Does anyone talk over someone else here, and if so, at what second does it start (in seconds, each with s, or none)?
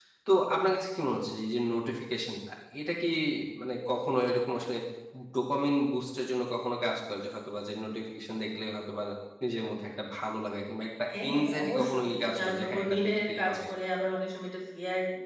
11.1 s